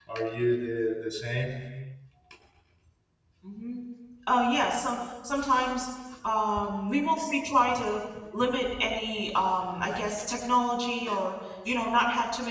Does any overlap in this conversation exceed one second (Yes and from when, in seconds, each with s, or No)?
No